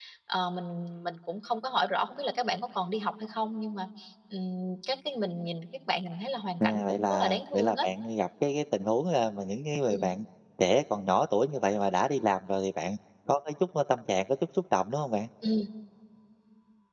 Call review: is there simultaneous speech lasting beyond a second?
Yes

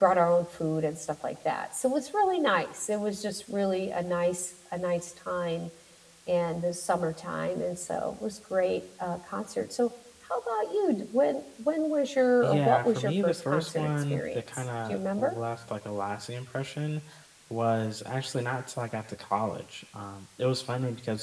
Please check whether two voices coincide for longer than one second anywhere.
Yes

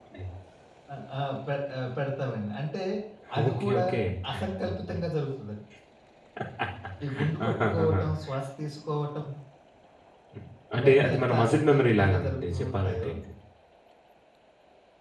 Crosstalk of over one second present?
Yes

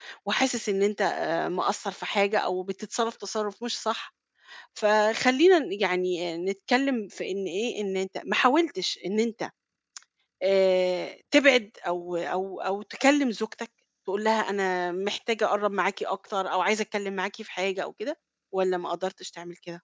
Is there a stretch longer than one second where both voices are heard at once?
No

